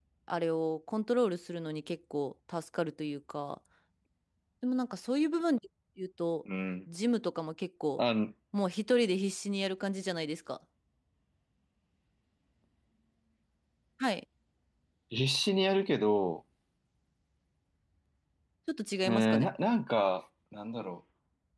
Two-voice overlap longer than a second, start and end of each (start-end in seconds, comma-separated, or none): none